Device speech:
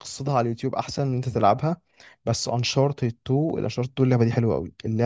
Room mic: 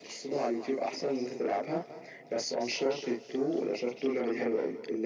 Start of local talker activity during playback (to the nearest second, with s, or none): none